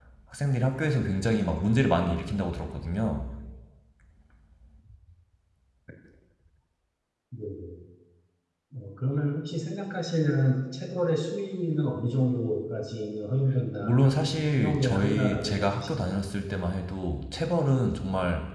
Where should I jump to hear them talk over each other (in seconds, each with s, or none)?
13.8 s